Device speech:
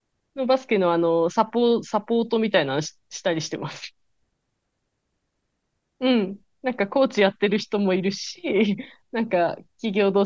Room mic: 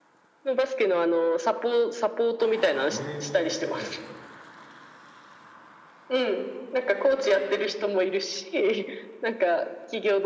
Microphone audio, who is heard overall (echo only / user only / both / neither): both